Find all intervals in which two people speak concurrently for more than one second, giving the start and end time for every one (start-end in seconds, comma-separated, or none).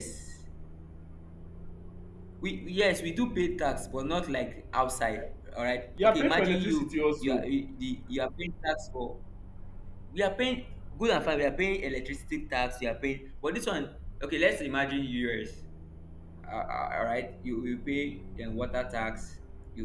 6.0-7.5